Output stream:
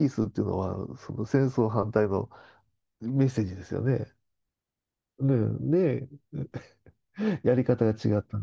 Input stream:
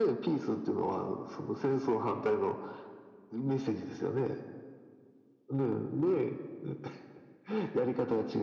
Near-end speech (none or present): none